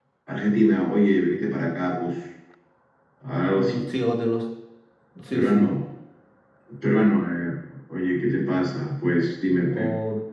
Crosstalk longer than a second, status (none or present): none